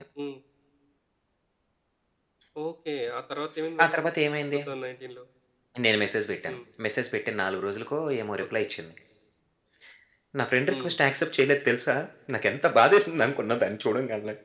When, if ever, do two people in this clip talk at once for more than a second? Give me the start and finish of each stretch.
none

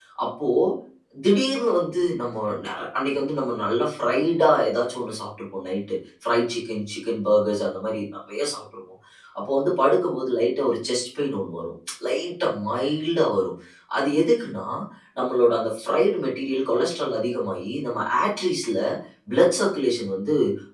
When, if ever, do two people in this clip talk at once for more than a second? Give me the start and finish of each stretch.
none

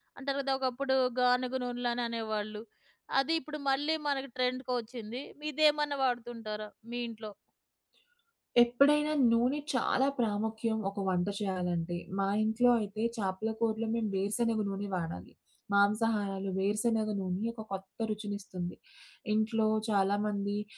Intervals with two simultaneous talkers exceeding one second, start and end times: none

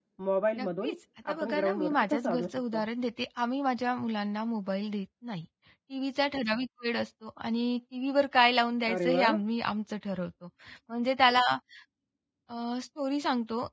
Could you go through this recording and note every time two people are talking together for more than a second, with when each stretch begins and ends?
1.3-2.8

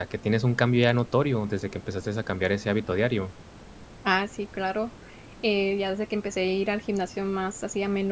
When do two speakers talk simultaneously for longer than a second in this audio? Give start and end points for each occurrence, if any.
none

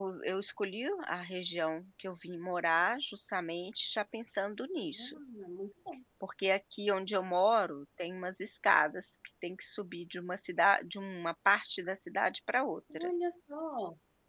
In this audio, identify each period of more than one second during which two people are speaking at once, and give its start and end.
none

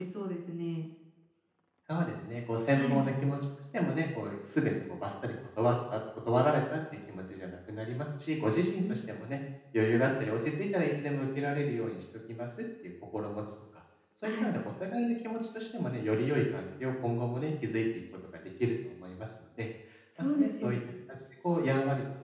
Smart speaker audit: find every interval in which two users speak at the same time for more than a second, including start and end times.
none

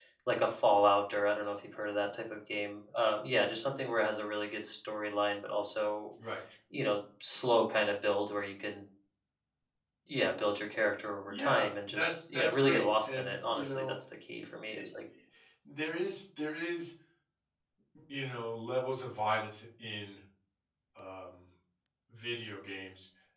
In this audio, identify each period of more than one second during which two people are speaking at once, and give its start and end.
11.3-13.9

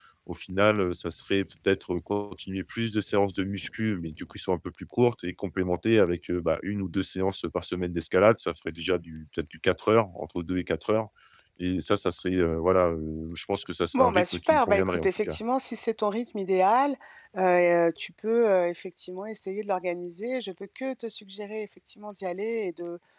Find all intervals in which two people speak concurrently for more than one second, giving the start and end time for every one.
13.9-15.4

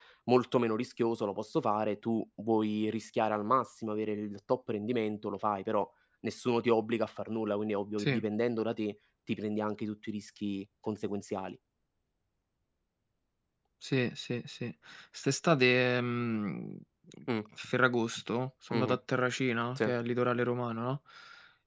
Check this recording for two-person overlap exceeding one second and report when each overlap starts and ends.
none

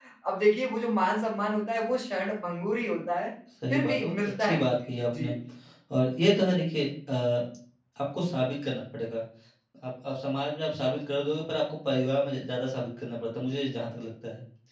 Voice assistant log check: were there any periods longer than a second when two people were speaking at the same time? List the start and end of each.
3.7-5.3

